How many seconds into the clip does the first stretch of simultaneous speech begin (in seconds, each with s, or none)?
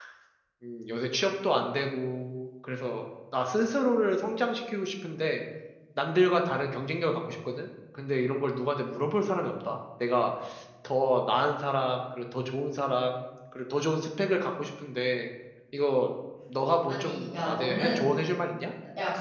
16.9 s